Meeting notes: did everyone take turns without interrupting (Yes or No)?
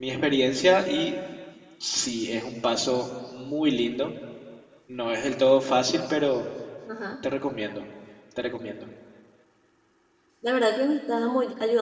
Yes